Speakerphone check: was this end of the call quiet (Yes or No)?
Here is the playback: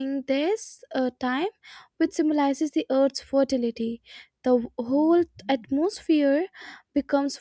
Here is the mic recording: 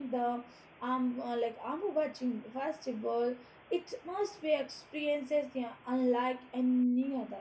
No